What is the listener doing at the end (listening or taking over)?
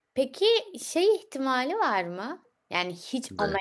listening